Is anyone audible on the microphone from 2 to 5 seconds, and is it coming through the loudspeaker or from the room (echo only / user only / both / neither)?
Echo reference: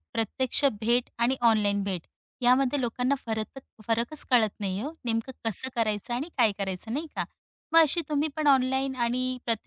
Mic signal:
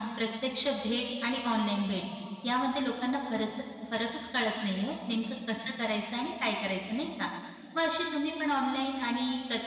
echo only